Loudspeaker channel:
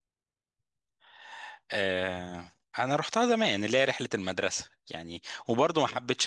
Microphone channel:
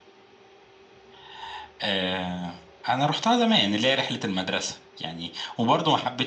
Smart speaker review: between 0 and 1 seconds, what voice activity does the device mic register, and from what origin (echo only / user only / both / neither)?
neither